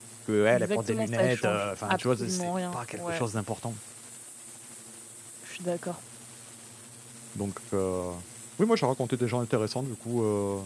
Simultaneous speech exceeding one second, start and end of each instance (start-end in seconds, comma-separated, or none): 0.5-3.2